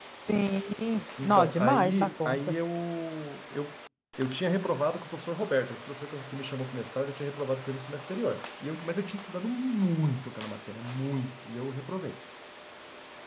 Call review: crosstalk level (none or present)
present